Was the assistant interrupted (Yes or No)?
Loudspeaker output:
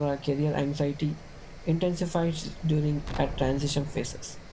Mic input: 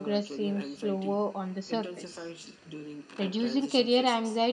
Yes